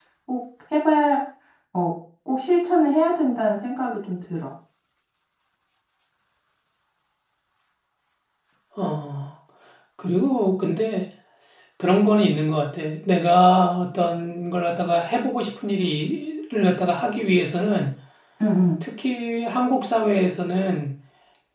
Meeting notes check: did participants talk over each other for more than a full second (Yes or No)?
No